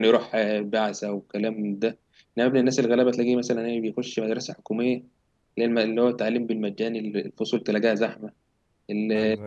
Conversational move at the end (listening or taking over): listening